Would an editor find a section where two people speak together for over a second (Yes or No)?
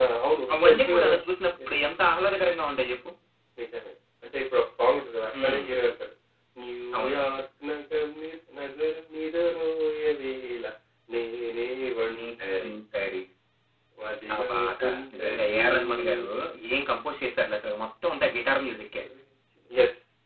Yes